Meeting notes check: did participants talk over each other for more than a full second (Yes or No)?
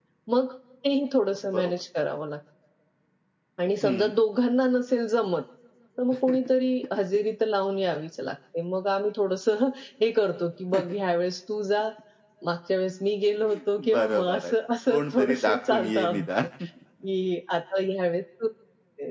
Yes